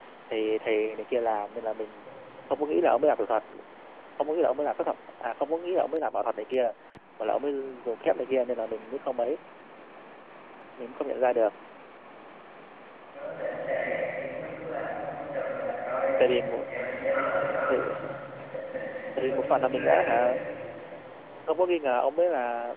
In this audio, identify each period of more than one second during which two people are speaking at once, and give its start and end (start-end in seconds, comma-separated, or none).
19.2-20.4